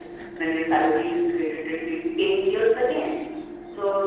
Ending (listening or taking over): listening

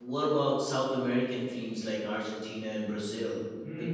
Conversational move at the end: taking over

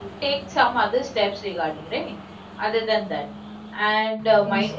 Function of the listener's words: listening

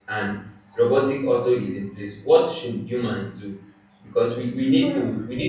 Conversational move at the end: listening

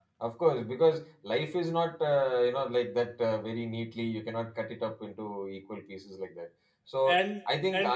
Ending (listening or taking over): listening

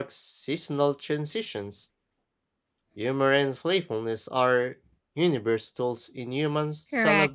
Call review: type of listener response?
taking over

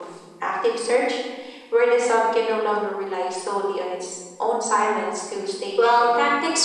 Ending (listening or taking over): taking over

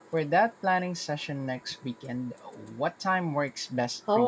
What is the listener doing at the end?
taking over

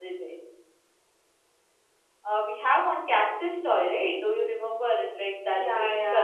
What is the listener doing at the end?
taking over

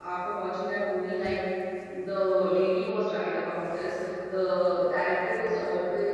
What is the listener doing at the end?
listening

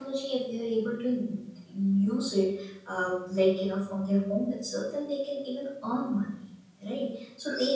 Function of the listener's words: listening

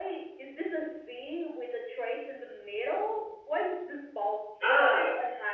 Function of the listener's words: taking over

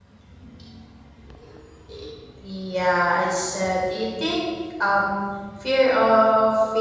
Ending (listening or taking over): listening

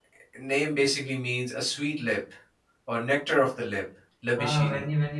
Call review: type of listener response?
taking over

